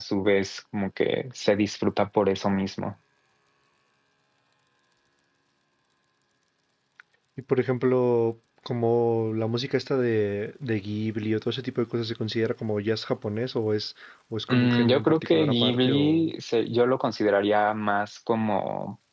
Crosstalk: present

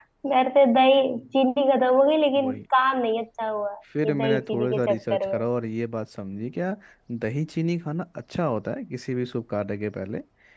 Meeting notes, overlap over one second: present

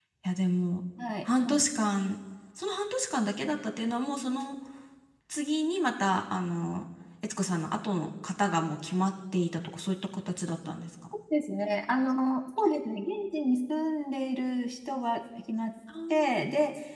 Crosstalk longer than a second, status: none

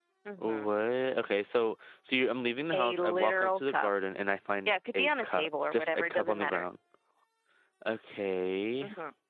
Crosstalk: present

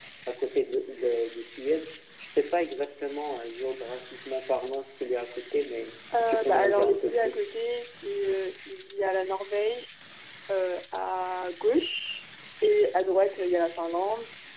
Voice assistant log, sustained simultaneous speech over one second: present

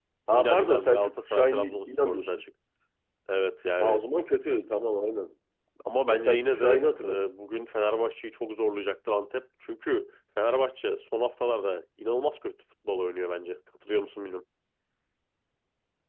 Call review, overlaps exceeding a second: present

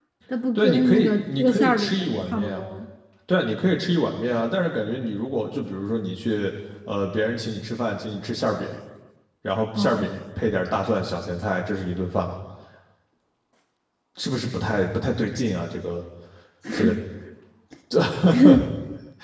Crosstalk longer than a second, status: present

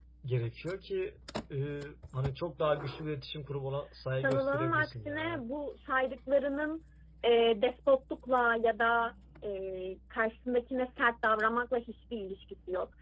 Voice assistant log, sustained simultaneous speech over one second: present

